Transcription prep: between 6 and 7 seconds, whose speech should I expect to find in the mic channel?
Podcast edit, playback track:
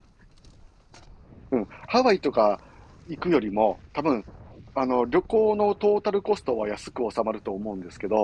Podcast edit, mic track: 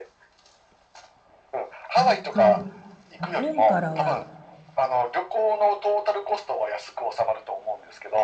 echo only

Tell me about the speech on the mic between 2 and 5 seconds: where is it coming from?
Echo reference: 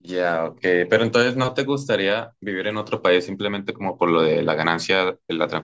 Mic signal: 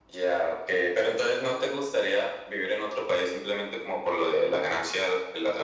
echo only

